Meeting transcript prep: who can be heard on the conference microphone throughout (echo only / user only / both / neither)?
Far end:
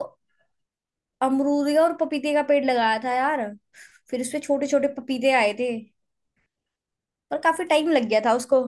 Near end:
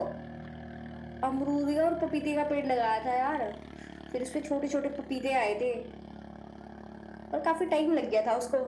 echo only